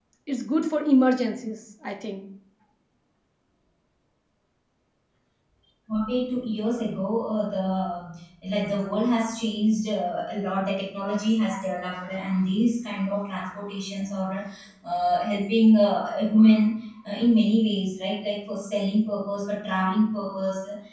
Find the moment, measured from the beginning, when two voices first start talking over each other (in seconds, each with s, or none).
none